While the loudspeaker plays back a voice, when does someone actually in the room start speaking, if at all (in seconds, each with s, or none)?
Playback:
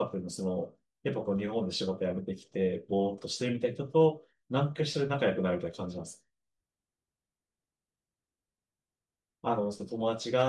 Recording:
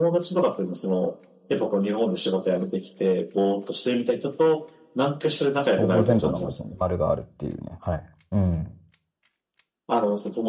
5.7 s